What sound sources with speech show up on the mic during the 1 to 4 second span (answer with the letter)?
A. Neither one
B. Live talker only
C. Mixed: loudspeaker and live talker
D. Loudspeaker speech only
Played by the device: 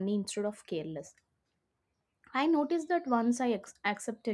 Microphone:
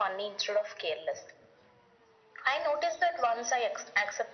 D